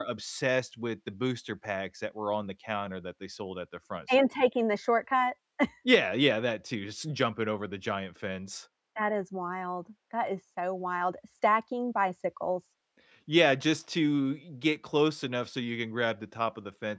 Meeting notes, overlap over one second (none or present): none